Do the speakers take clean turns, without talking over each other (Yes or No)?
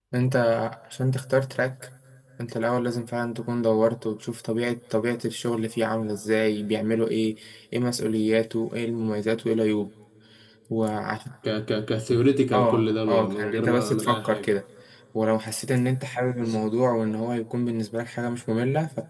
No